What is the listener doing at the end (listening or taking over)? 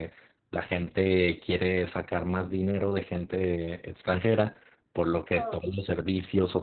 listening